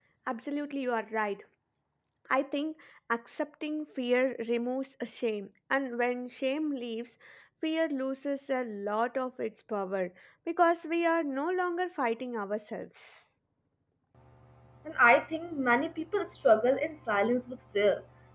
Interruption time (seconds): none

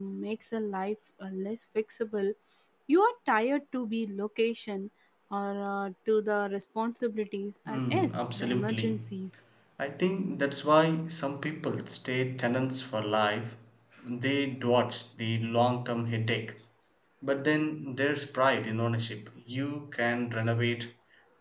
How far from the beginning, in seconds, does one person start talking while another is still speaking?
7.7 s

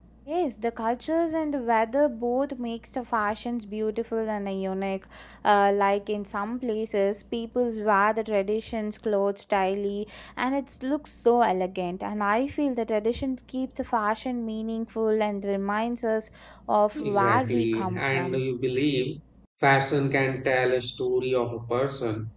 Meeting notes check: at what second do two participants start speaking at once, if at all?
16.9 s

